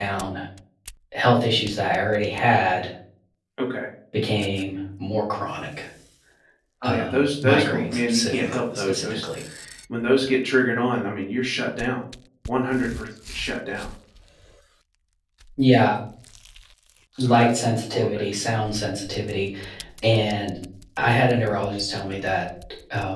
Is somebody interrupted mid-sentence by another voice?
Yes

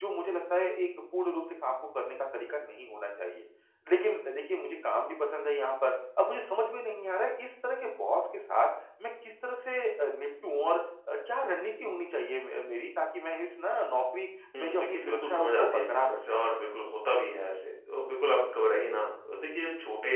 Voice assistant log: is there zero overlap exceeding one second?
No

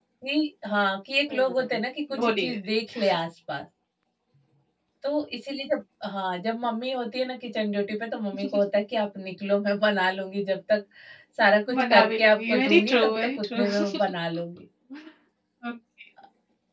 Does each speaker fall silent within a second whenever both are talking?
No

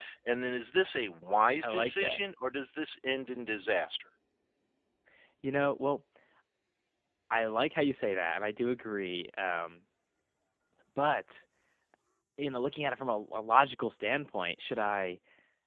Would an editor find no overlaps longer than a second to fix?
Yes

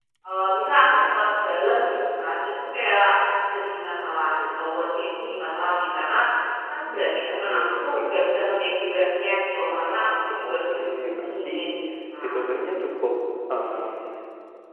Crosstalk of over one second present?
Yes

